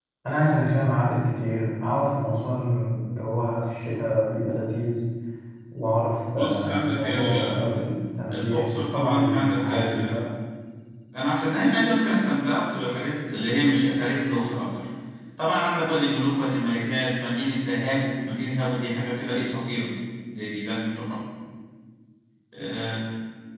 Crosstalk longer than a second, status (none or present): present